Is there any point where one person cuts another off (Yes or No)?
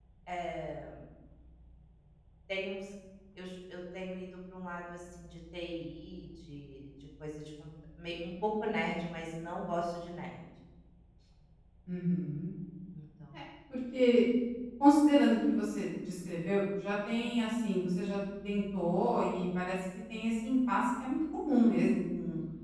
No